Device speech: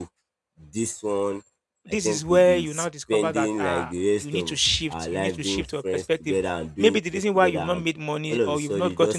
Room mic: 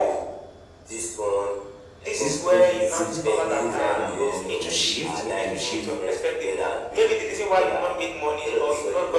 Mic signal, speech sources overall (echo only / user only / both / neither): both